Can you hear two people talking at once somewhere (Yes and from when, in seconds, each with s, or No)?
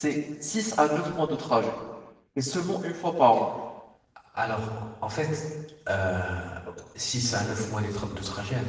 No